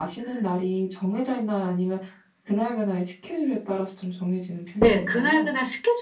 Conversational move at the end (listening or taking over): taking over